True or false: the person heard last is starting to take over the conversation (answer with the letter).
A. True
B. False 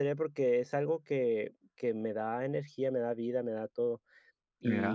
B